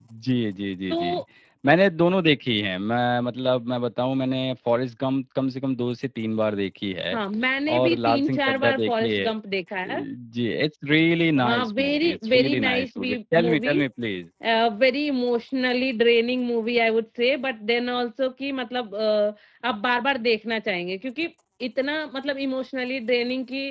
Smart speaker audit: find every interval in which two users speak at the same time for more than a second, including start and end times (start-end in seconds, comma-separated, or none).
7.8-9.3, 11.4-13.8